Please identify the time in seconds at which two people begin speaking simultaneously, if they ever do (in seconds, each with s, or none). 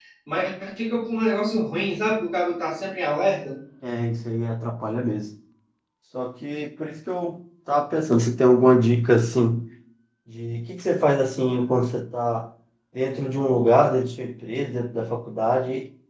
none